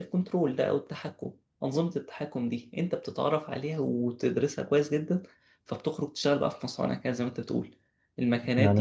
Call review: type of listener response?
listening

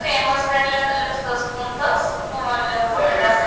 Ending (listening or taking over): taking over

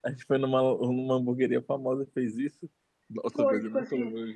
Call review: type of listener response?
taking over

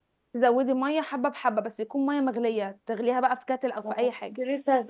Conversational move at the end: taking over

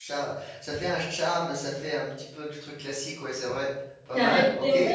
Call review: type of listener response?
taking over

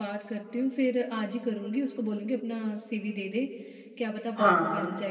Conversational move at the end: listening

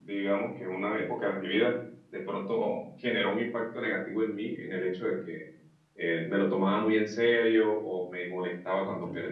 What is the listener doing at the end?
listening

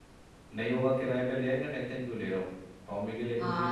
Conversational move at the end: taking over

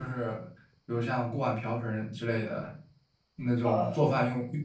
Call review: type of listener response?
listening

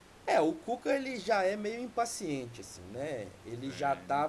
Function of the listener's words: listening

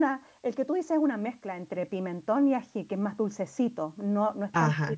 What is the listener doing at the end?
taking over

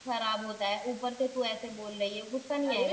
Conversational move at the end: taking over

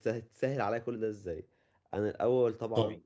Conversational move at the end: listening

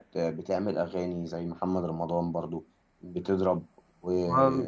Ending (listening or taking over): listening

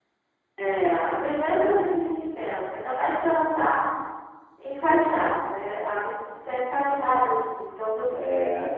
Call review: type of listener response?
listening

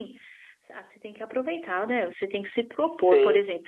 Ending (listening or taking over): listening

